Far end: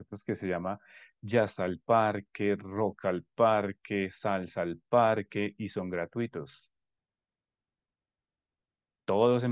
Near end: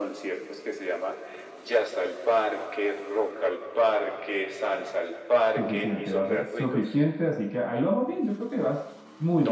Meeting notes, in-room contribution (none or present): present